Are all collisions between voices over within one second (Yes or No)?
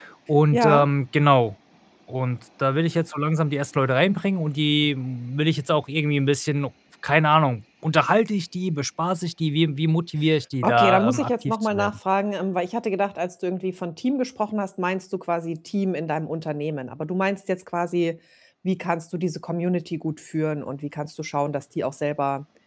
No